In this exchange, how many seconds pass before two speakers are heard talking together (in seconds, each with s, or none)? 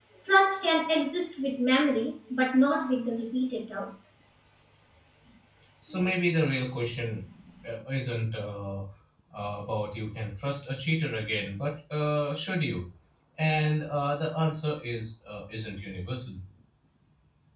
none